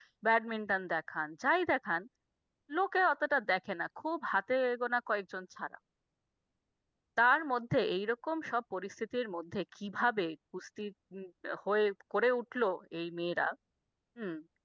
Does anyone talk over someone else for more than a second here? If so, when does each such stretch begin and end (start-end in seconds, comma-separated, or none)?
none